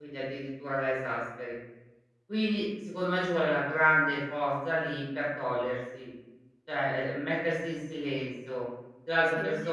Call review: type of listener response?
listening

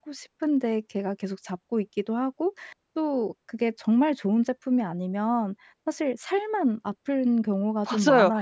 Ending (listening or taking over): taking over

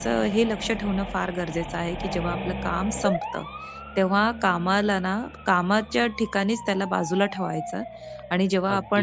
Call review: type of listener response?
listening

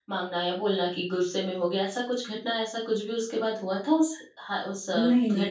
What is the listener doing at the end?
taking over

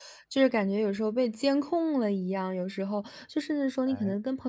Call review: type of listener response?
listening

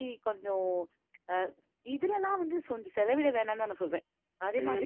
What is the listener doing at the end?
taking over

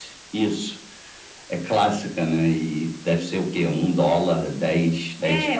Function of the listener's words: taking over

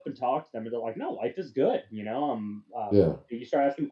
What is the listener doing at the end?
listening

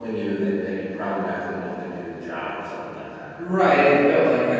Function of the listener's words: taking over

